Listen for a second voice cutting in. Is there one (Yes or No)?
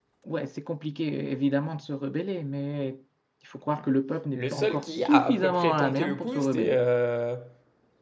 Yes